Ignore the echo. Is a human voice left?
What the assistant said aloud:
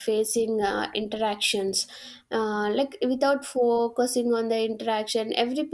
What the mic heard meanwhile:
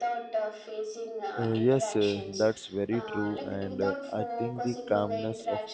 Yes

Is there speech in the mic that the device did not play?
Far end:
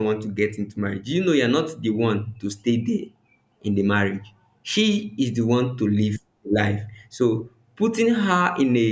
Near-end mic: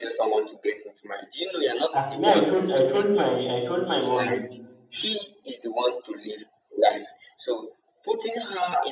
Yes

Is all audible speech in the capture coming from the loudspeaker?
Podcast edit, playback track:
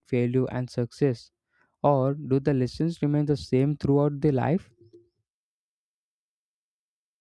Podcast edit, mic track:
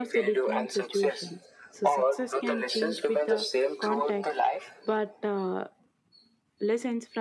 No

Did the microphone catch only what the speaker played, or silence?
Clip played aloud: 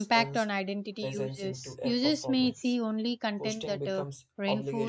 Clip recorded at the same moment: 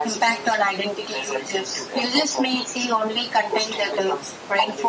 Yes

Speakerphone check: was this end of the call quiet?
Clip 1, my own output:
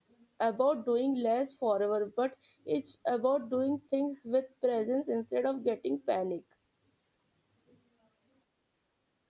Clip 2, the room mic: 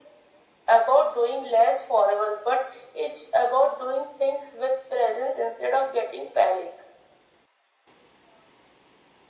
Yes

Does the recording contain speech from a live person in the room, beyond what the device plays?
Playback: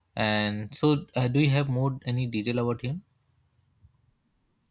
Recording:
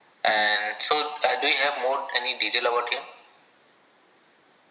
No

